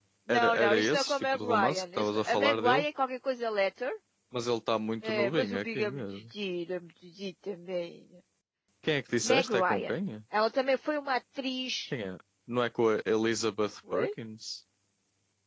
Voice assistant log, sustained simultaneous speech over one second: present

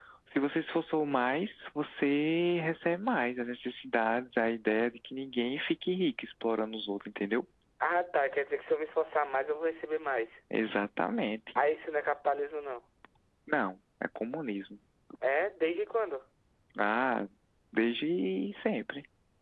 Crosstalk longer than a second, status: none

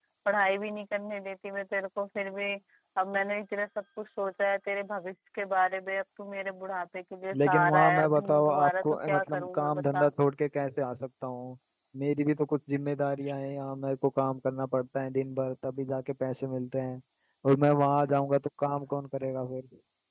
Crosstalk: present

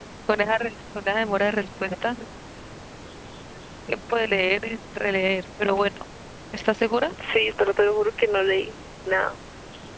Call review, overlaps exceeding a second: none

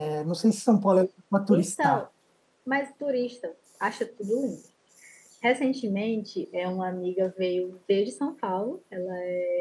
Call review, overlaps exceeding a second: none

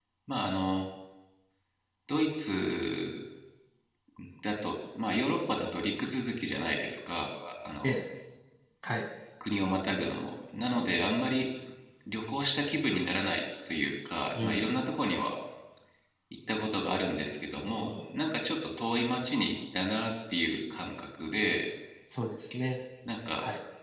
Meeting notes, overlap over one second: none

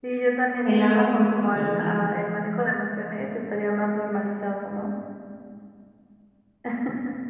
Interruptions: present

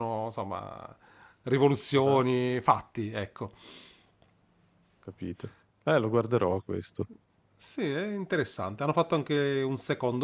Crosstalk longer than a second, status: none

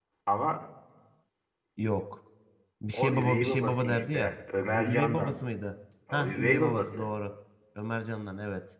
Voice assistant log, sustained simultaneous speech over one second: present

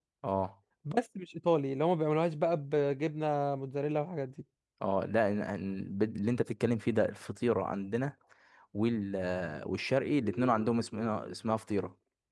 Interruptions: none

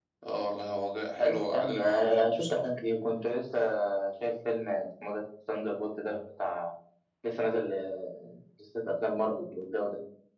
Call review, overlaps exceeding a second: present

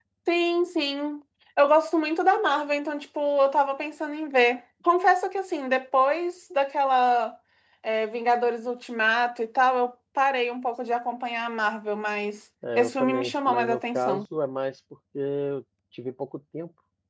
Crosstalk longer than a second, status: present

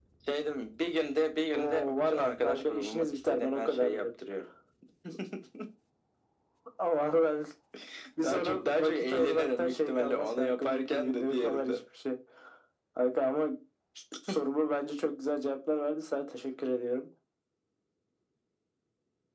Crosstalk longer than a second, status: present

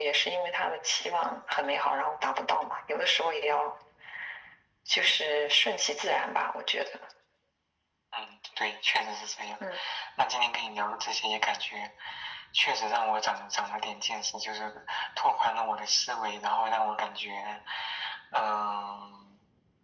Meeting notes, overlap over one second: none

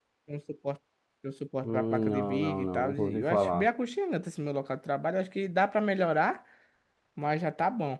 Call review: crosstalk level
present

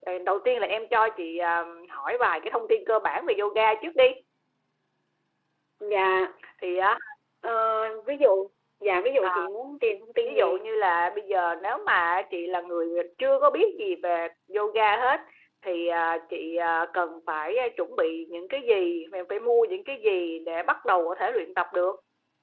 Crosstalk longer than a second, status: none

